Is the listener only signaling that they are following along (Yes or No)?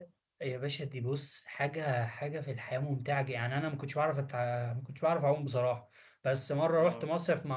Yes